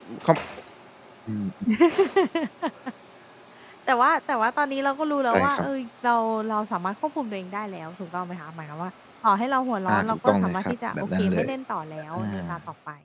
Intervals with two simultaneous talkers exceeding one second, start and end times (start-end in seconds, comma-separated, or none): 9.9-11.5